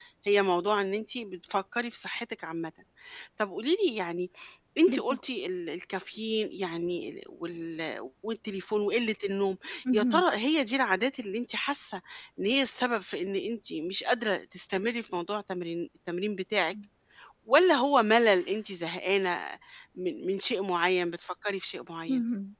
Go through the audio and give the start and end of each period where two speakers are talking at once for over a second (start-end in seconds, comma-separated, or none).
none